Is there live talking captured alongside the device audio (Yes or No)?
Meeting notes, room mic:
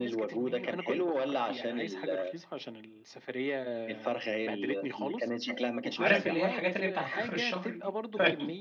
Yes